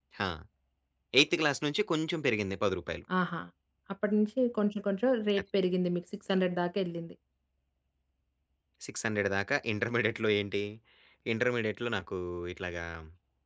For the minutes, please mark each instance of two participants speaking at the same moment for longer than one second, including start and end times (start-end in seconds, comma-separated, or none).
none